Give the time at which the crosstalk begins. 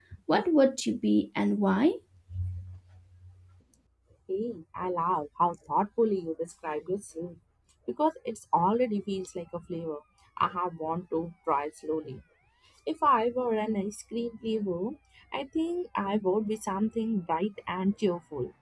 none

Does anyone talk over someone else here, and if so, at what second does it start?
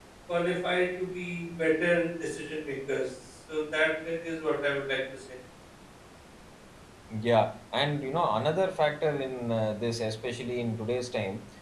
none

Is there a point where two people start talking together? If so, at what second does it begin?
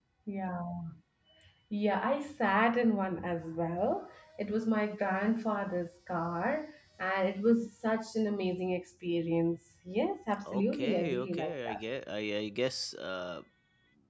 10.4 s

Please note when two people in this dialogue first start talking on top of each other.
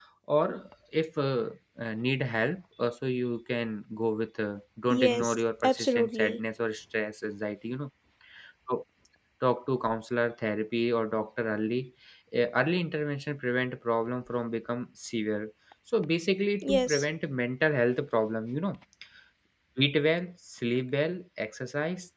4.9 s

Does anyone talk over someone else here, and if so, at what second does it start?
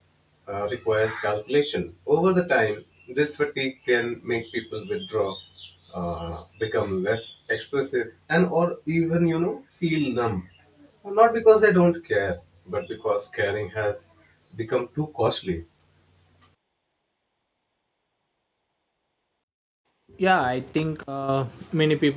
none

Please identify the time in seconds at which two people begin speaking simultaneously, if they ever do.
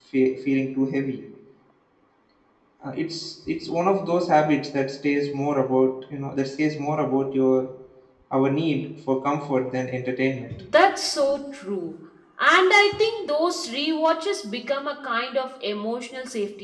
none

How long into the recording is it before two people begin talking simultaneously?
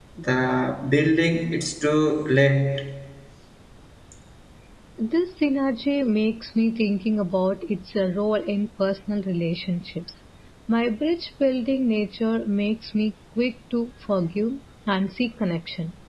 none

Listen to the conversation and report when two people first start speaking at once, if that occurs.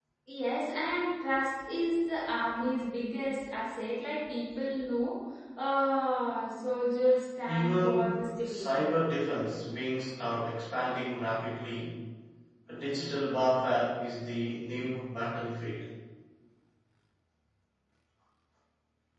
7.5 s

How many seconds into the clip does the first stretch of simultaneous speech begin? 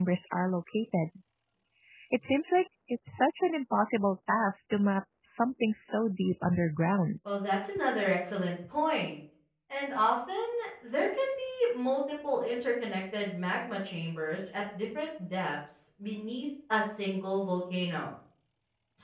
none

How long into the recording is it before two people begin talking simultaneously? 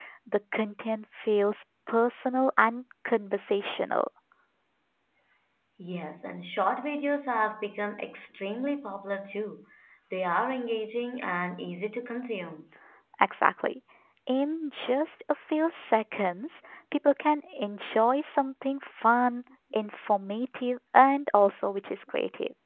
none

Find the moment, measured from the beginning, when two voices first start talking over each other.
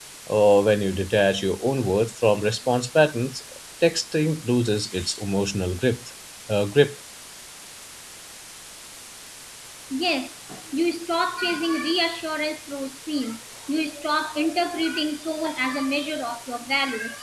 none

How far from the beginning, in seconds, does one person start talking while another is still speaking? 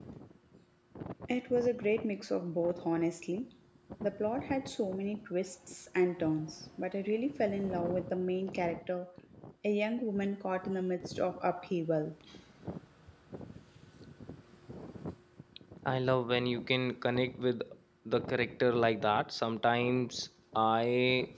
none

